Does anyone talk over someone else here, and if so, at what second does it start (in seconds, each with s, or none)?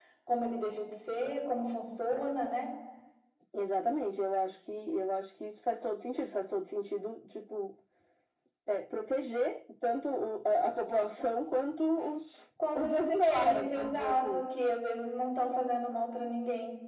12.6 s